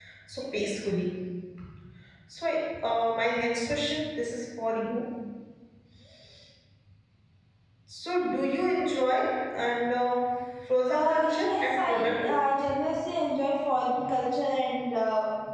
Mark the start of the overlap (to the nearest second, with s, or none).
11 s